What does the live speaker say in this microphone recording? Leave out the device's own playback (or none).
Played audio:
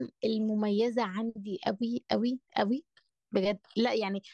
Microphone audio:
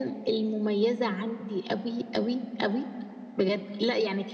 none